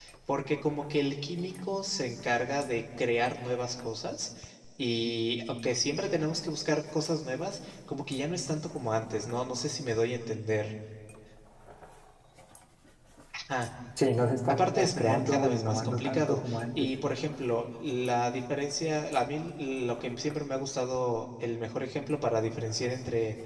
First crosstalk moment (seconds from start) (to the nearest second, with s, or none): 14 s